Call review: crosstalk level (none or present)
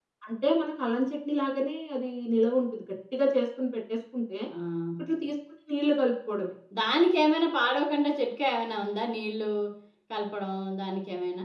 none